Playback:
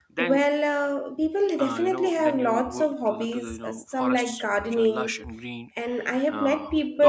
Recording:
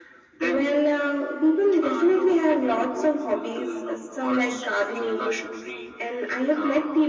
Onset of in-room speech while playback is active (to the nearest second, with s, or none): none